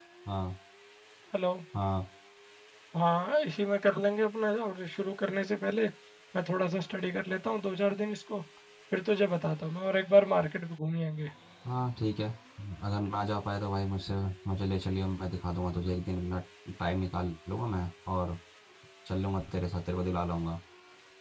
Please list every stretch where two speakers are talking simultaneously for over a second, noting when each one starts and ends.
none

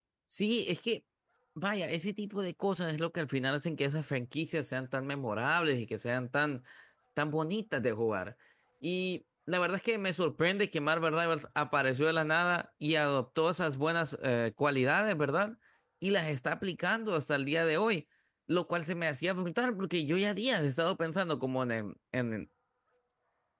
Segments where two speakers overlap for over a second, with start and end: none

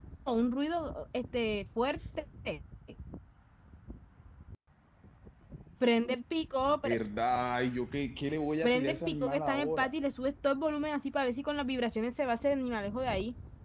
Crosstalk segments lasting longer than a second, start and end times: 8.6-9.9

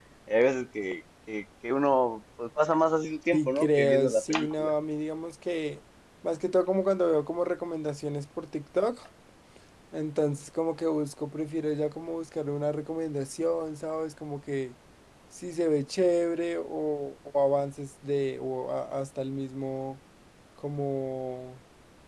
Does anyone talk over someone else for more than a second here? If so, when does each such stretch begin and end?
3.3-4.7

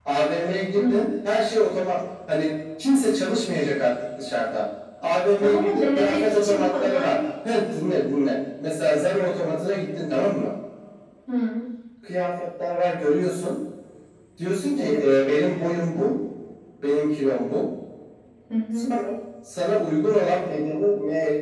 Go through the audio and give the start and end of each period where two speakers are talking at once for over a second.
5.4-7.2

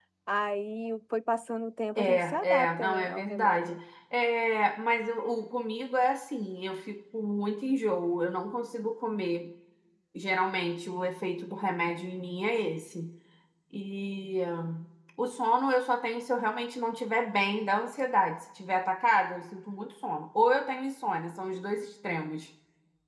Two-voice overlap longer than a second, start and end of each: 2.0-3.8

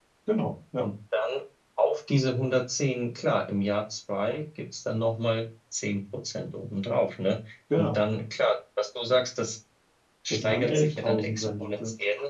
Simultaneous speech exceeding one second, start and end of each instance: 10.3-11.8

